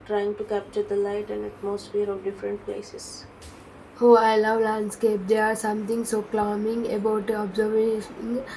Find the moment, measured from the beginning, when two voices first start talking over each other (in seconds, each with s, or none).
none